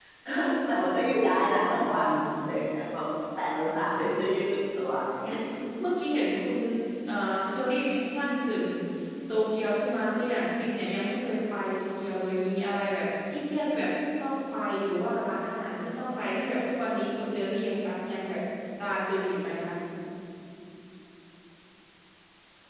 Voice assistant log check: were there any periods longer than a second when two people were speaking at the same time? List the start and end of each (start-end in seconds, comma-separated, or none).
none